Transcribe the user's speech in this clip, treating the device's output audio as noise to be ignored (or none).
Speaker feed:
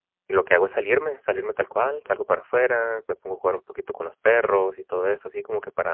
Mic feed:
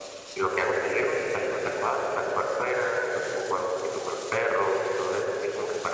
none